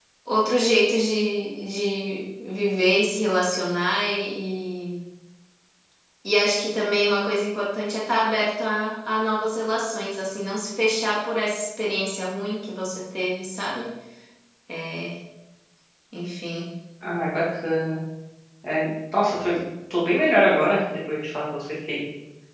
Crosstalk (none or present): none